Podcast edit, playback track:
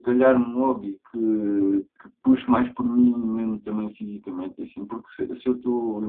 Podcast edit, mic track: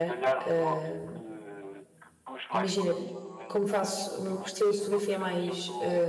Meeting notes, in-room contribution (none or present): present